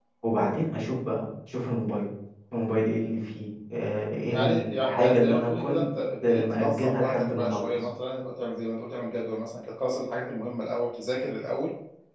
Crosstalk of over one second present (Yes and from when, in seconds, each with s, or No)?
Yes, from 4.3 s